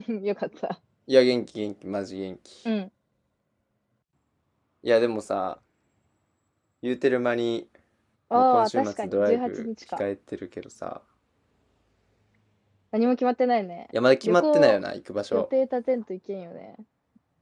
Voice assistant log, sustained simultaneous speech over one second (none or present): present